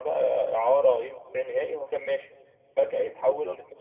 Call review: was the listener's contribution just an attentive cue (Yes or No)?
Yes